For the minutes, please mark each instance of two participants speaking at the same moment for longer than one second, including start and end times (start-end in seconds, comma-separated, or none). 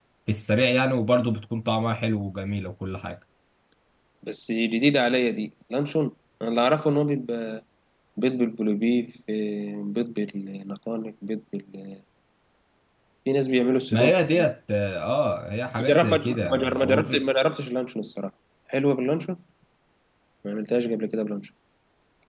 15.9-17.2